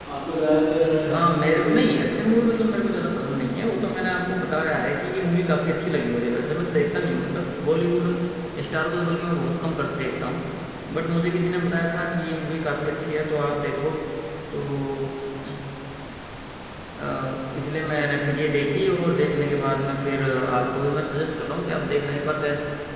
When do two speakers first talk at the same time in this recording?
1 s

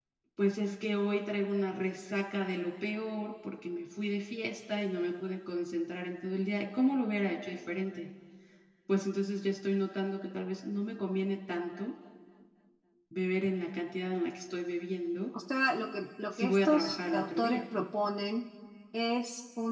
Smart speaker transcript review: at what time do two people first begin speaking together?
16 s

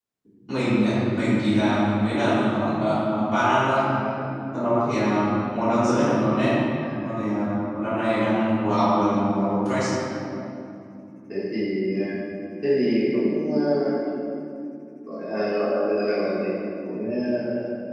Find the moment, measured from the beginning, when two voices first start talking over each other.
none

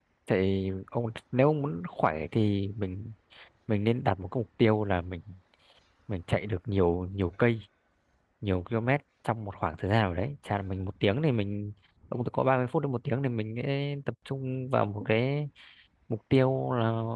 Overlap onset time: none

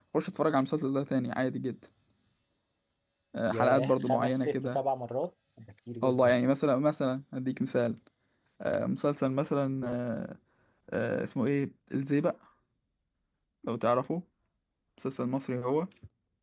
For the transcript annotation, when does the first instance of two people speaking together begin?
3 s

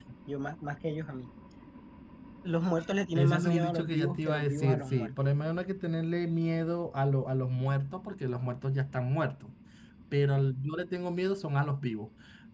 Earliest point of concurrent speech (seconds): 3 s

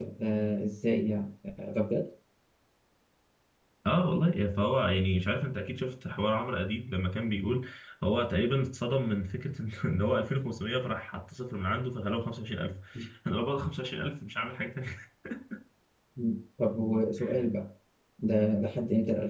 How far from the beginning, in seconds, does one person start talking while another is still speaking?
none

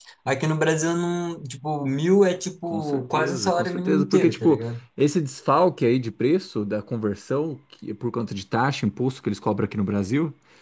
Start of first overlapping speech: 3 s

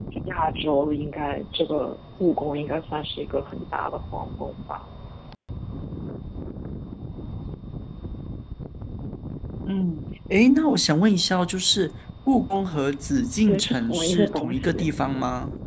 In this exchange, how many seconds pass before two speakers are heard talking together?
13 s

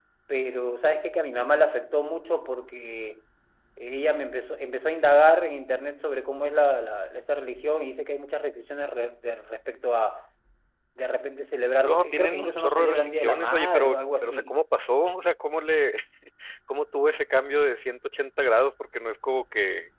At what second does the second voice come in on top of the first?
12 s

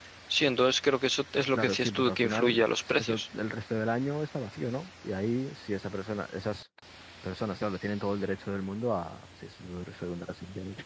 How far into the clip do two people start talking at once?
2 s

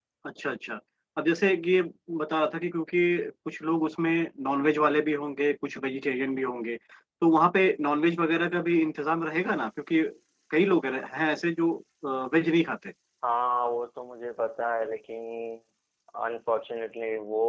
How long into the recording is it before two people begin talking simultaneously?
none

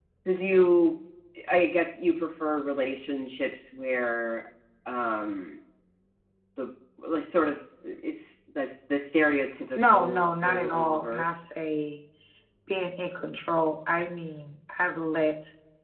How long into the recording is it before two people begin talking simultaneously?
10 s

